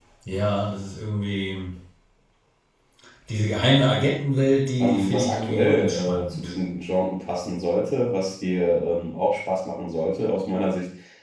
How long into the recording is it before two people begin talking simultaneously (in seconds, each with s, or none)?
4.8 s